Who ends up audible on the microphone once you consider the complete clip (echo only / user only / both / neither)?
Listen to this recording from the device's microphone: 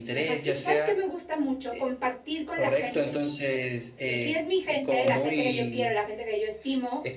both